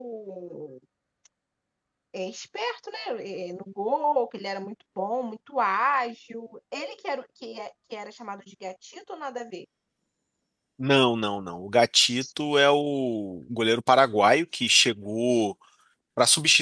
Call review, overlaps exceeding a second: none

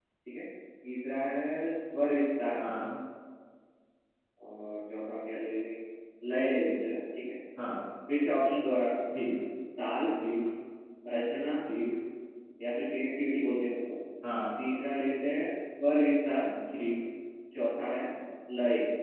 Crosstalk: none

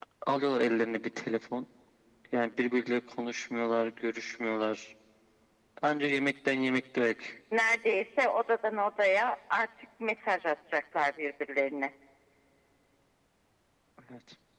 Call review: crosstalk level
none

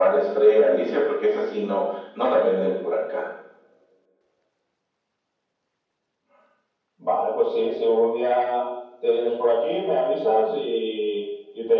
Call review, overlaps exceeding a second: none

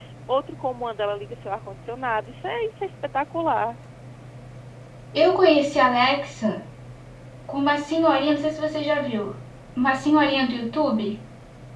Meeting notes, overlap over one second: none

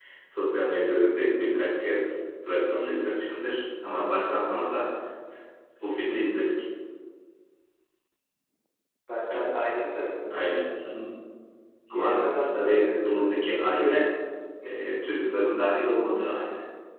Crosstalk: present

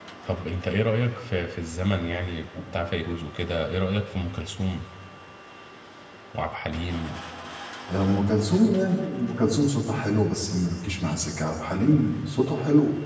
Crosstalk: none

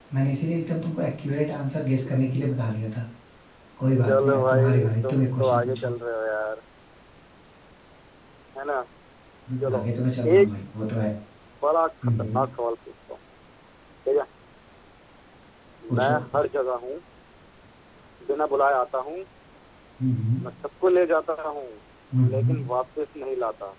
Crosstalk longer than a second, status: present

